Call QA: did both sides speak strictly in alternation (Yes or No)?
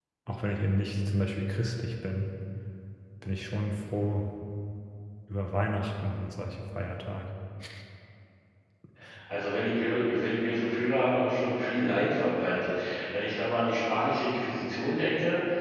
Yes